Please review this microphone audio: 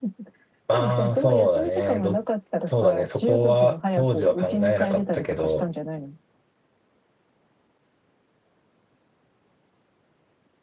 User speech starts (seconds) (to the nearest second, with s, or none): 1 s